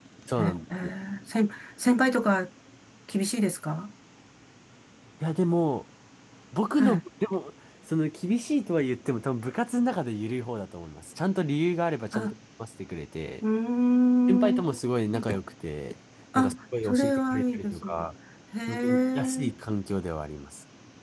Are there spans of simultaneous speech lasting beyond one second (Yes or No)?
Yes